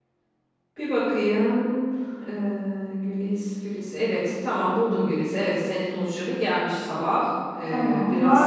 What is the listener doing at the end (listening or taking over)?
taking over